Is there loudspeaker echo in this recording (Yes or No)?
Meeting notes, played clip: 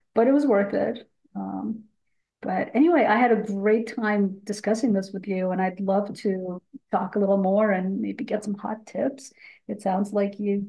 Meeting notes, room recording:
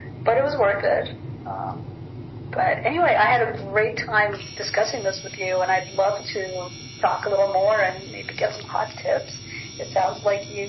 Yes